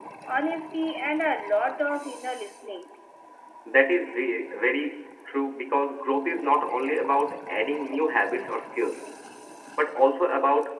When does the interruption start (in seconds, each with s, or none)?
none